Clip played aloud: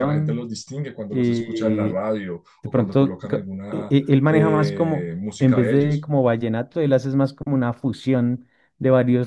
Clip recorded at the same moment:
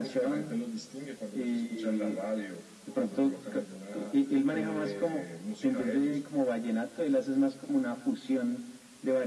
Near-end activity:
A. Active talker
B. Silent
B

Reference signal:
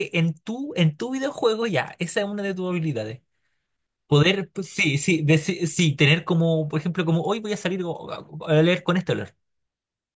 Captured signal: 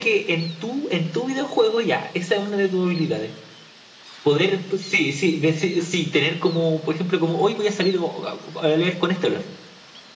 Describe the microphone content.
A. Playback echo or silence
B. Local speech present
A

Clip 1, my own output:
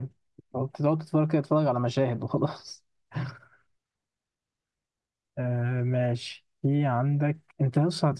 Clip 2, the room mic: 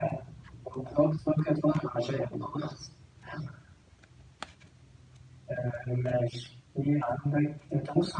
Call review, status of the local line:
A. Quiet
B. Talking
A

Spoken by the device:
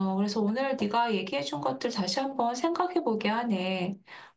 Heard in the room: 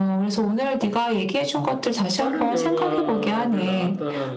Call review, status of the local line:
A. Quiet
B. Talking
B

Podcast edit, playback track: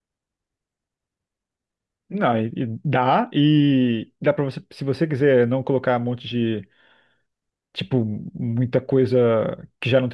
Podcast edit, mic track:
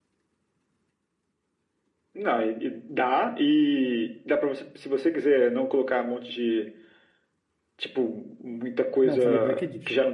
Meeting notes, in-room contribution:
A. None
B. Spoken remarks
B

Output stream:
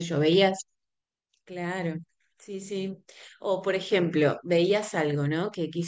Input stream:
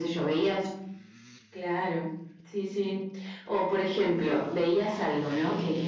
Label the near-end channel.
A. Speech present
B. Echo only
B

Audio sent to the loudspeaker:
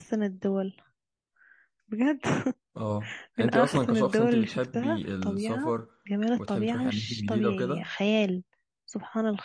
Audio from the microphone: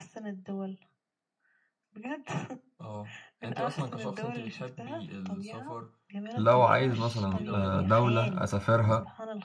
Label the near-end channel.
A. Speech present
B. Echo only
A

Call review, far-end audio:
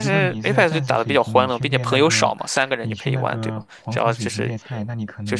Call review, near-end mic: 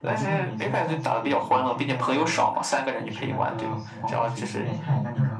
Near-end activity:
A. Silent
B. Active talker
B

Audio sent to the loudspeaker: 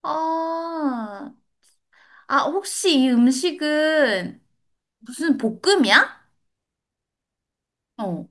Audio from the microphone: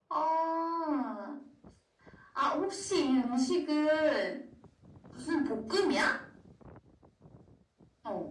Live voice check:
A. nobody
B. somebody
A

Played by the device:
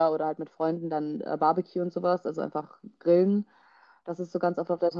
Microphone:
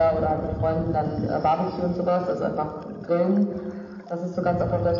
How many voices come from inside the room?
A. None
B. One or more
A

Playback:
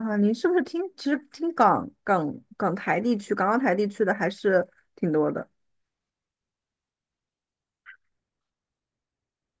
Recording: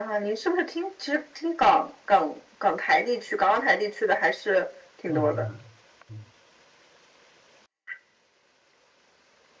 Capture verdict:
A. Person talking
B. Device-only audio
A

